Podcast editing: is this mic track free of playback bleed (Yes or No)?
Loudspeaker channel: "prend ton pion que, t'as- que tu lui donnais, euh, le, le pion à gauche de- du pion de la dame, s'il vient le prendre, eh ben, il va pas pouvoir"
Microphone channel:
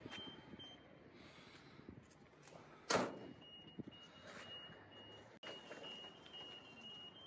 Yes